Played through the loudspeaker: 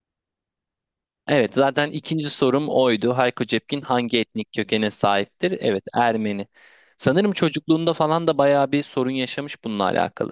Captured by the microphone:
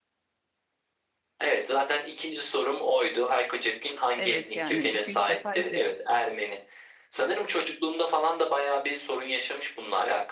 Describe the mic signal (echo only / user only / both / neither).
both